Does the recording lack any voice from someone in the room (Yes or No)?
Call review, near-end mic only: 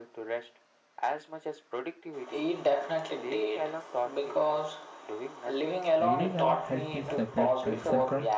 No